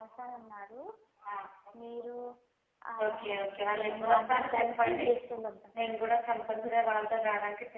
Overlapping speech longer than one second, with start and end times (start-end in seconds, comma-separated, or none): 3.8-5.1